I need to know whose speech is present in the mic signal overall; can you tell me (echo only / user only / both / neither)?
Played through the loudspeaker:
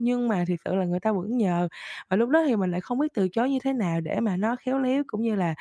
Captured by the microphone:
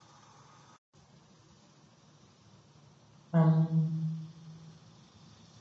user only